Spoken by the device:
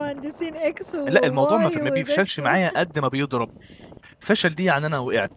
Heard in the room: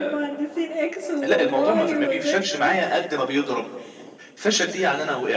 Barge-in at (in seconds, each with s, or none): none